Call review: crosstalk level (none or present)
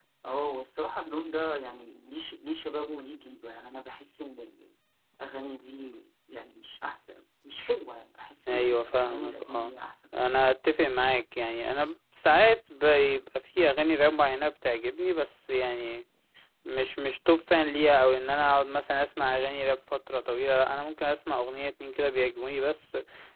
present